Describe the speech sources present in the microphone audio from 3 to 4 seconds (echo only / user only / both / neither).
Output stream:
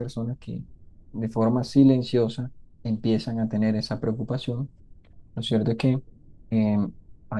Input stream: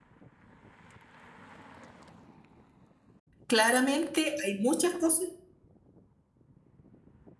user only